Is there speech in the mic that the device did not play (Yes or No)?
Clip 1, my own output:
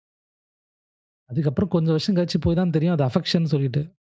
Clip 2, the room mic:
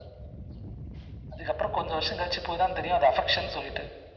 No